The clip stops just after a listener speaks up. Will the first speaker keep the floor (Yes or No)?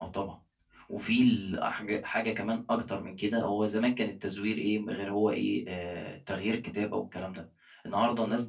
Yes